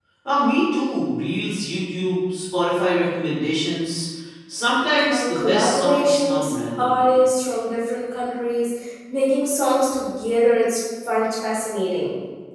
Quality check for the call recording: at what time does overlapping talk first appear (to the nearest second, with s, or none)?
5 s